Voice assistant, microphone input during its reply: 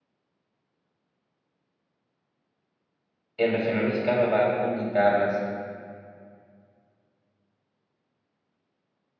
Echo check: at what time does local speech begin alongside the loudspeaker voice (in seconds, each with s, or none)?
3.4 s